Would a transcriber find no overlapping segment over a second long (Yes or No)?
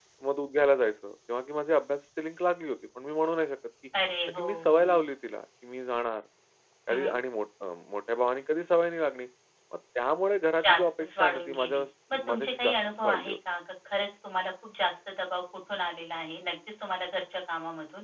No